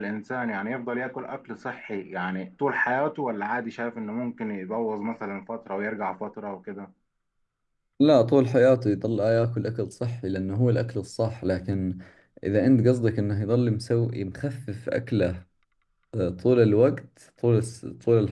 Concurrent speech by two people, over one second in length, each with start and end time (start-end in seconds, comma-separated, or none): none